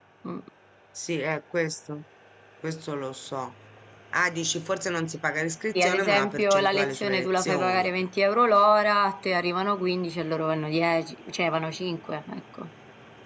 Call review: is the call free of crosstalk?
No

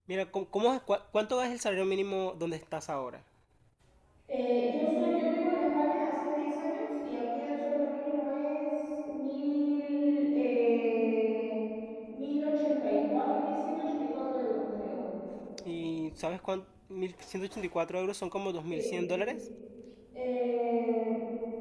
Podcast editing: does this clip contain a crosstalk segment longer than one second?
No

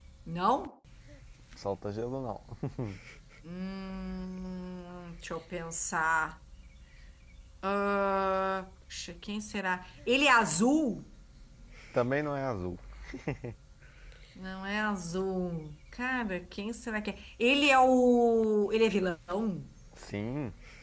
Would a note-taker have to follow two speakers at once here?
No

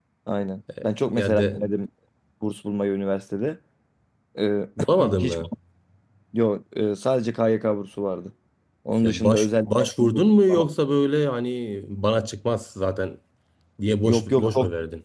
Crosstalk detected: Yes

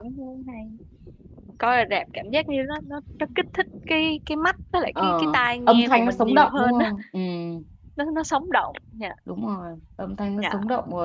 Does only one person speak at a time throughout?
No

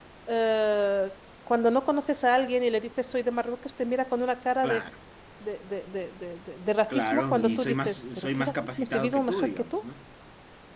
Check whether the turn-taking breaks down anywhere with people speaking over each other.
Yes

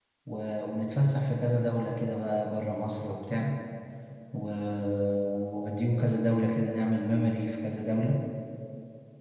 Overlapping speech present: No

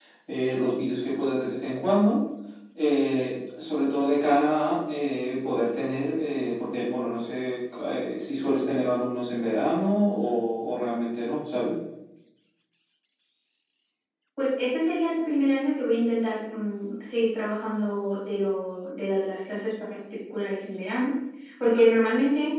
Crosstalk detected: No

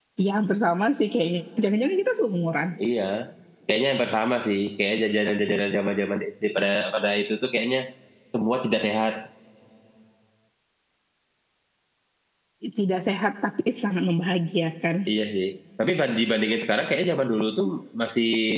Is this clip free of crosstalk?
Yes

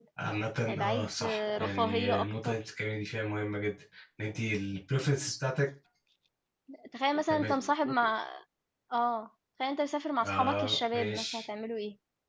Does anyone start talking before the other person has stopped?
Yes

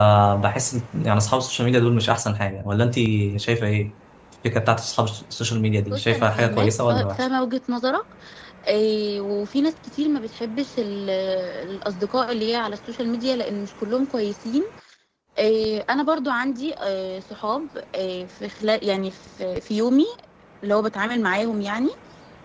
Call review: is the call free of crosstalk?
No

